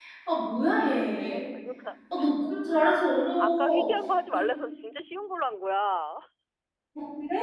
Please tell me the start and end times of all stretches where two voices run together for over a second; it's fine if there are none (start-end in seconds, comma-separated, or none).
none